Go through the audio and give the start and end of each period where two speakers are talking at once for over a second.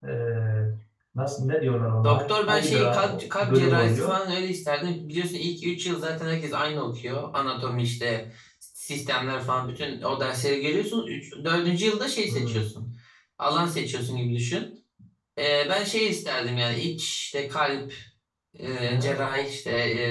2.0-4.1

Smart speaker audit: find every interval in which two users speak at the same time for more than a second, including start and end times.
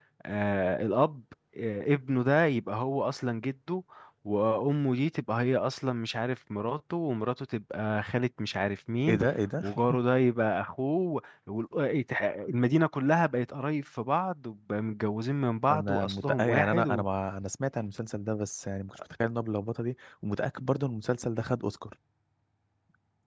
15.7-17.0

